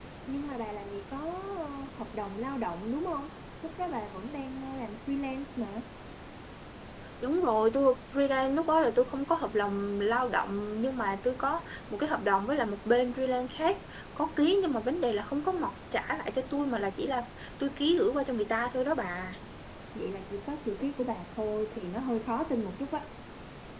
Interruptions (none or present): none